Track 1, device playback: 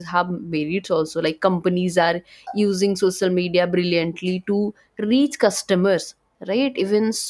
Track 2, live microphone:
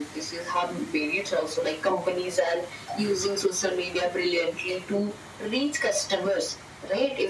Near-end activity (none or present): none